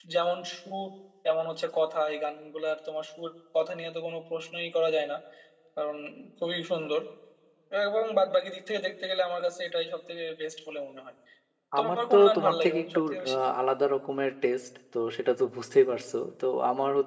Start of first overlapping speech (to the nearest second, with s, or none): 12 s